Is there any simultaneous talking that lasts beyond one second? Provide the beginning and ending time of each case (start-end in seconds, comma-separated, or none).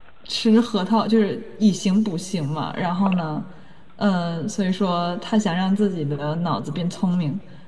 none